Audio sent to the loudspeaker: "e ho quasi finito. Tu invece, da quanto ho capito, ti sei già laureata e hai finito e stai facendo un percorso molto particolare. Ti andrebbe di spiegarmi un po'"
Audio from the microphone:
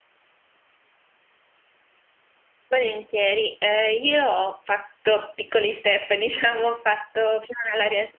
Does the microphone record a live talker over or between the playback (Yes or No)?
Yes